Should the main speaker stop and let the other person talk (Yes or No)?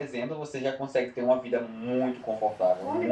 Yes